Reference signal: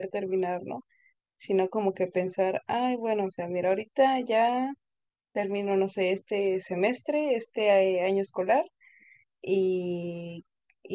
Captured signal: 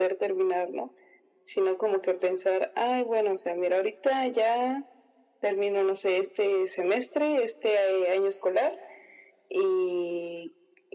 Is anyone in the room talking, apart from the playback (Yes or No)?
No